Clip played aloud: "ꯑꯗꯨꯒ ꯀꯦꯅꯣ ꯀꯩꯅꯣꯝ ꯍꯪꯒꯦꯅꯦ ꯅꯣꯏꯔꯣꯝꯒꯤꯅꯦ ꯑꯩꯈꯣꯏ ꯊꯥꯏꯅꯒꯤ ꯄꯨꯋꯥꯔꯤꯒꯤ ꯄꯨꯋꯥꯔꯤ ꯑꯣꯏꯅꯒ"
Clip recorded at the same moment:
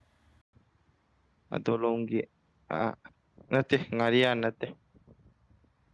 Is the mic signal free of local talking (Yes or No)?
No